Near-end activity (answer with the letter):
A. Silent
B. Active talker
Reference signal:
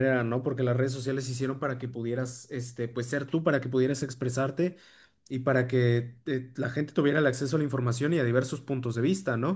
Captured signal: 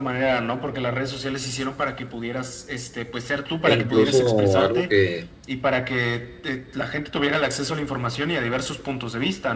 B